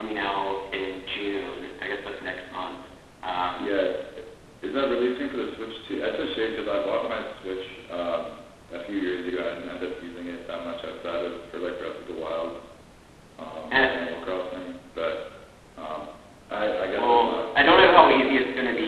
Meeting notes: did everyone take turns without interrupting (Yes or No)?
No